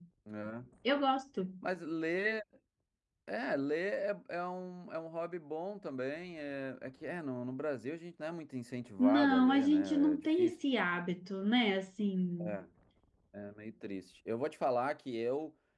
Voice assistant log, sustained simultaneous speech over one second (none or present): present